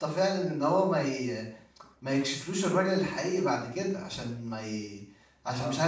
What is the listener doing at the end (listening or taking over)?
listening